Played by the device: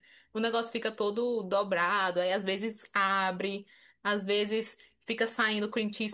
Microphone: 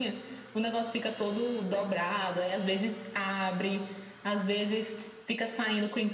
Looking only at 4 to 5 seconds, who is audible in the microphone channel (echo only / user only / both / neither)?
echo only